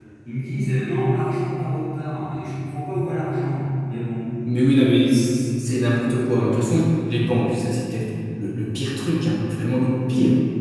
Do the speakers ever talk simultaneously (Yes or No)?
No